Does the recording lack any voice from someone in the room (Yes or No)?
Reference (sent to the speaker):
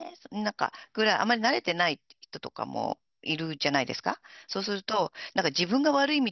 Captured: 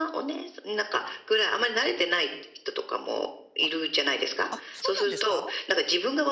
No